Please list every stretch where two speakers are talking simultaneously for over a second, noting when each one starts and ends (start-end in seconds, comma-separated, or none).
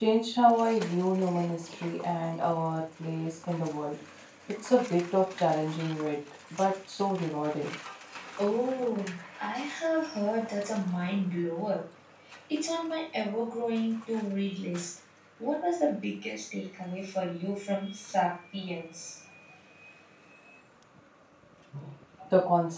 none